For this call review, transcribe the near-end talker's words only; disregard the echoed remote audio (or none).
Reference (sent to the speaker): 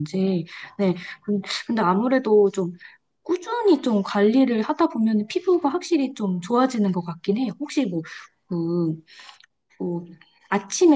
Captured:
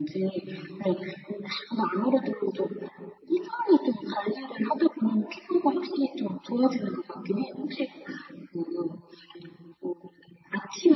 none